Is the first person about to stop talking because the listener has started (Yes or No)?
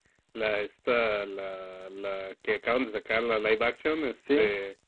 No